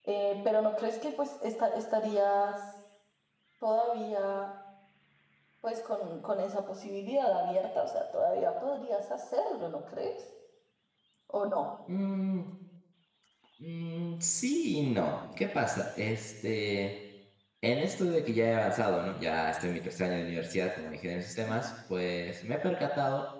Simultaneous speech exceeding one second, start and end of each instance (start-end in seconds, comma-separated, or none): none